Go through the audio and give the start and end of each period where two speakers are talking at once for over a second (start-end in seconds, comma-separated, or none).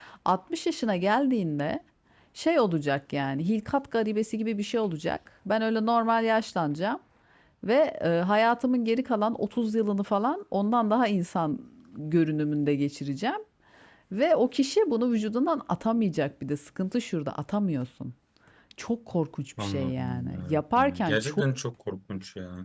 19.6-21.4